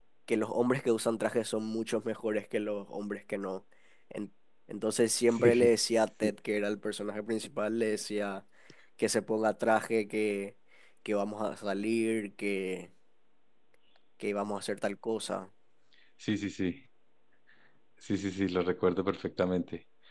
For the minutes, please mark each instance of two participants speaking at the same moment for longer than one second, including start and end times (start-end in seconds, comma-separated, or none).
none